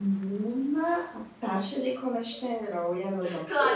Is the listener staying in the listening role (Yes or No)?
No